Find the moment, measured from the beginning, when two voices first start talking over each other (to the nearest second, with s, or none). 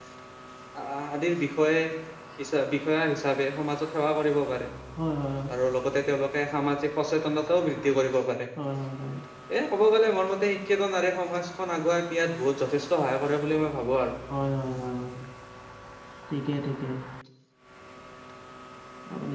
none